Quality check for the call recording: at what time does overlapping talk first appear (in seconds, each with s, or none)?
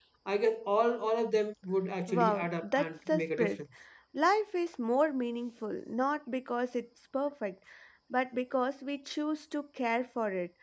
2.1 s